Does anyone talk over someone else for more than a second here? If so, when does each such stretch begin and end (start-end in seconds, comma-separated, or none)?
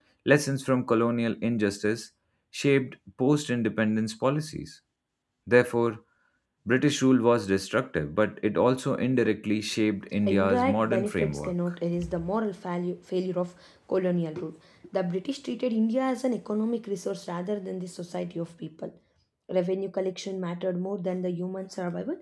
10.3-11.8